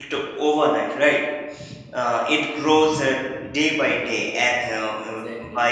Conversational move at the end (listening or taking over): listening